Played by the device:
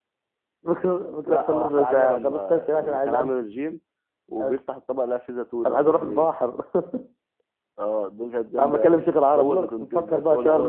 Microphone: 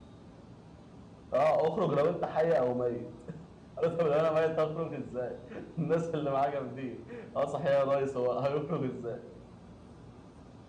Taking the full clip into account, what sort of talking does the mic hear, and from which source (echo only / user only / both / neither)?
user only